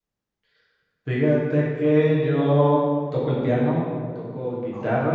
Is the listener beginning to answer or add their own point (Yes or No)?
No